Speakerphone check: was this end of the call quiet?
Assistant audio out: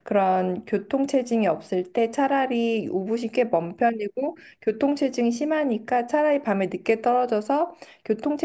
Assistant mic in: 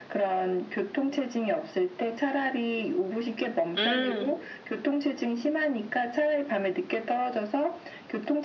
No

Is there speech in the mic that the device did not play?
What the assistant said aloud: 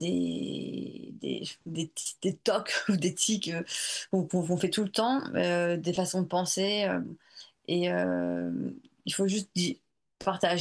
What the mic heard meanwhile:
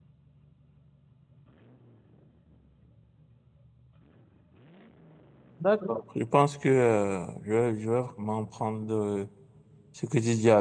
Yes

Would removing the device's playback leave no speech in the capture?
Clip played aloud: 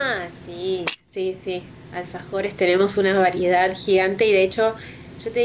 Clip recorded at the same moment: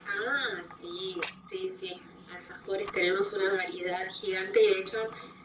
Yes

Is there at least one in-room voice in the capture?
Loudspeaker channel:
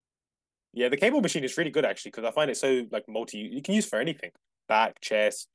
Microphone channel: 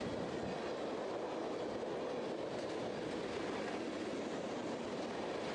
No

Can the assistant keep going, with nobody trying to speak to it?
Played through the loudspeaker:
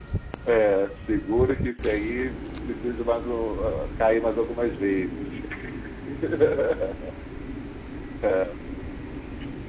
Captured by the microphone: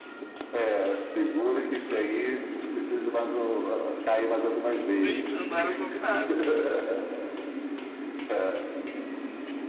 No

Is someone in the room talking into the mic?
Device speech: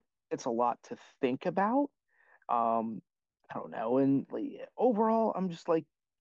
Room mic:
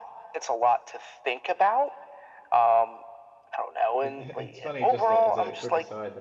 Yes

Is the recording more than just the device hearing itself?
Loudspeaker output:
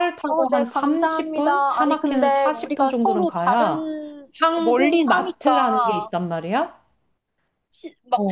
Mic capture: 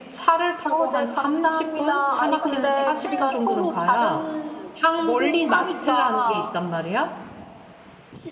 Yes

